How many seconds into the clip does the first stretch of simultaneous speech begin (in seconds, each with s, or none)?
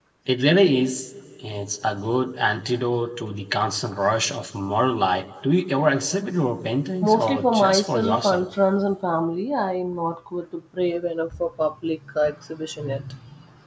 7.0 s